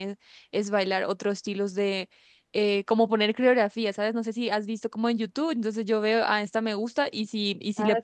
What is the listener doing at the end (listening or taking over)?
listening